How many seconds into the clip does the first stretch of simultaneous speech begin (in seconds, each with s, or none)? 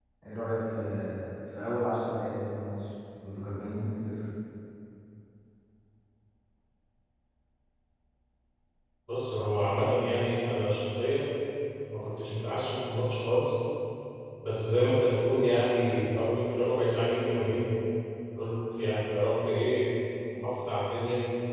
none